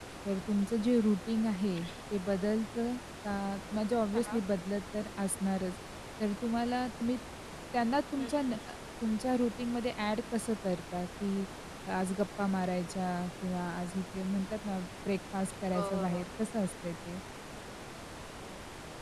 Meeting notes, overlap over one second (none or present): none